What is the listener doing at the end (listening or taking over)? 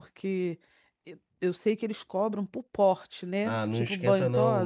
taking over